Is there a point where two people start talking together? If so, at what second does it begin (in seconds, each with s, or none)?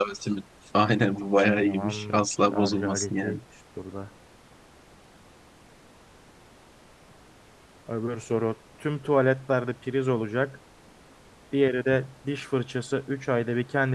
1.6 s